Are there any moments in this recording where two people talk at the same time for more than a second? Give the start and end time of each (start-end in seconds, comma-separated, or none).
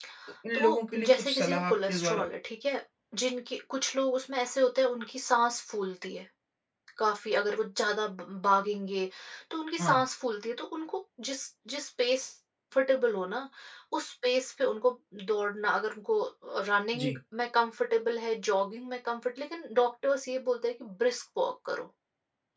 0.5-2.2